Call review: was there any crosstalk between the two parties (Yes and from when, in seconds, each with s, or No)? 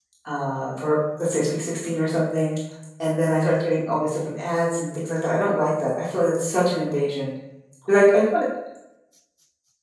No